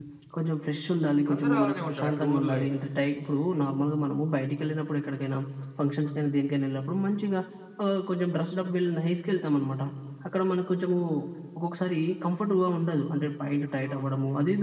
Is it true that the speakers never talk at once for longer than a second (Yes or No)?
No